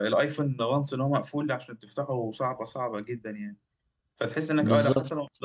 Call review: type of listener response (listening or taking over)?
listening